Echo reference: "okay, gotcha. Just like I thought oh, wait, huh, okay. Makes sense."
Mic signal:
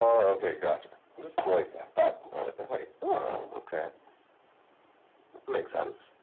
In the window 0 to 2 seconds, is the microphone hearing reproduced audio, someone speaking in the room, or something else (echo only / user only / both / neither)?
echo only